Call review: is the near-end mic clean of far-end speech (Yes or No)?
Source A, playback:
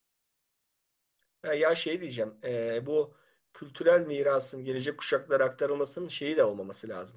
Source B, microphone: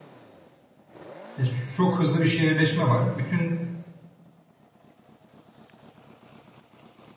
Yes